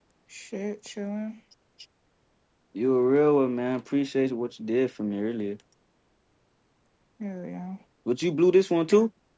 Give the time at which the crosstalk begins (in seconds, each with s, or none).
none